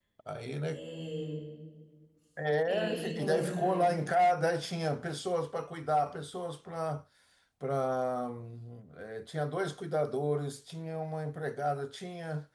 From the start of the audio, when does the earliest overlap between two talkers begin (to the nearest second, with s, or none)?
3 s